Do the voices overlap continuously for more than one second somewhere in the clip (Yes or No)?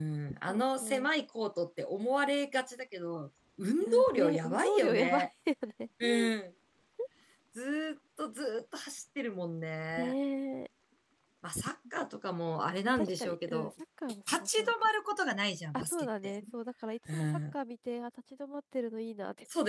Yes